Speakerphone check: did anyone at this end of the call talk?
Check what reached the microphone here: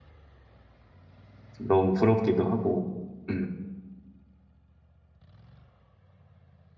Yes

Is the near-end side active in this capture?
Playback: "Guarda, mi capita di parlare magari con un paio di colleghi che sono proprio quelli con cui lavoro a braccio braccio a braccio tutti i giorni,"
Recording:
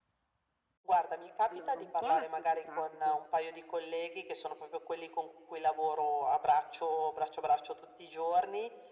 Yes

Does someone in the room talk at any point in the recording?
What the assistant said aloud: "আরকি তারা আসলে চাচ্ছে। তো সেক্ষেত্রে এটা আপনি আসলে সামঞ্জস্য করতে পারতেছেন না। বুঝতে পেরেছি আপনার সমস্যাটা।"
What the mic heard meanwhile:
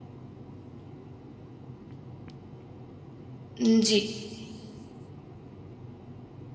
Yes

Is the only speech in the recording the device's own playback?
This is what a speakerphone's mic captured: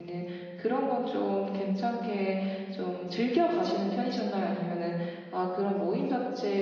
No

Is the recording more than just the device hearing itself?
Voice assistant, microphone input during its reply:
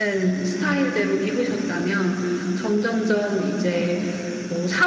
Yes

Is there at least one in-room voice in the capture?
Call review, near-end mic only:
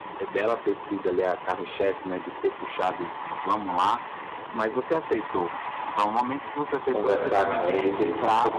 Yes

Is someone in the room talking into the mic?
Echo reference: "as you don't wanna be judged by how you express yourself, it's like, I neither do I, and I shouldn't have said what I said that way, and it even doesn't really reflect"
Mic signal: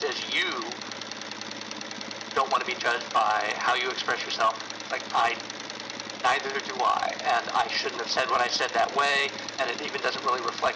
No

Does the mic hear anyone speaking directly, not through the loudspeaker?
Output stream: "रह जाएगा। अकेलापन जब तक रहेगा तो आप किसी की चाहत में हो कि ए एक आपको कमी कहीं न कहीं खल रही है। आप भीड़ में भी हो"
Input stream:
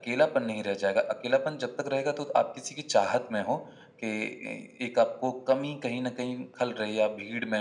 No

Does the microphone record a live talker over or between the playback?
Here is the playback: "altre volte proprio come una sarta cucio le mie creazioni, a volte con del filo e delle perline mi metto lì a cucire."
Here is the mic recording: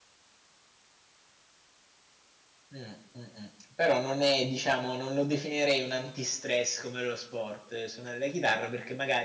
Yes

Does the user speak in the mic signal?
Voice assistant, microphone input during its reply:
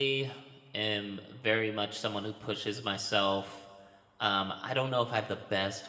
Yes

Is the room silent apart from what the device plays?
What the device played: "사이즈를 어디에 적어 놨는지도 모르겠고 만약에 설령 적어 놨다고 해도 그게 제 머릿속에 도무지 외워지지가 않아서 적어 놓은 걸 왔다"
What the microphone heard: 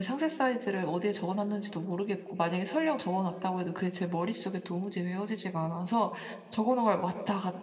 Yes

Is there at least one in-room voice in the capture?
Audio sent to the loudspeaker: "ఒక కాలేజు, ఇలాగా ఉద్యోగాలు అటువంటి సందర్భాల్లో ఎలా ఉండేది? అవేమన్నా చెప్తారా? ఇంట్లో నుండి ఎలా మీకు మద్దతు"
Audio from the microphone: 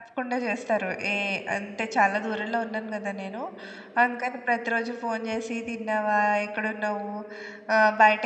Yes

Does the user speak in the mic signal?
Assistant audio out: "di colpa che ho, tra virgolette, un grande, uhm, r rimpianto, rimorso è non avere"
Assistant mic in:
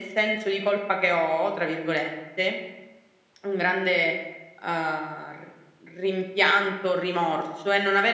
No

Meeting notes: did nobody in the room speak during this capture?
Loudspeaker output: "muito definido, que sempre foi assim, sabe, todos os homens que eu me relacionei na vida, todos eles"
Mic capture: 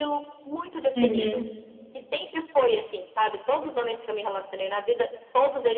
No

